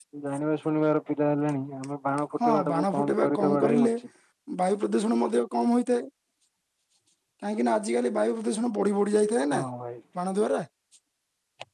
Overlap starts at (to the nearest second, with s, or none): 2 s